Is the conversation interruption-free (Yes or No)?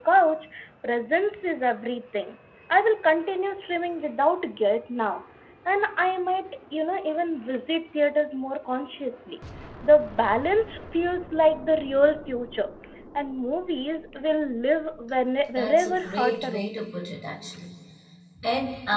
No